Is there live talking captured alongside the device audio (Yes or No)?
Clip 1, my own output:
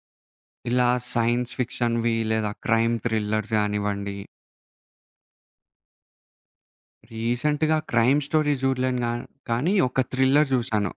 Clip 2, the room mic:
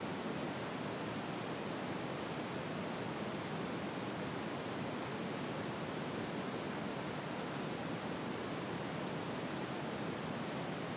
No